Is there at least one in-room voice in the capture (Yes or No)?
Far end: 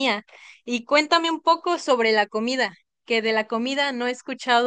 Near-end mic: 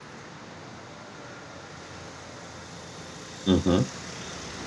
Yes